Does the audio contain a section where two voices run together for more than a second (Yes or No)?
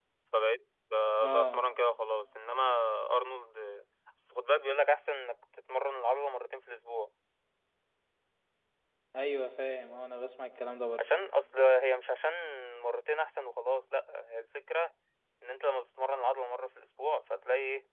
No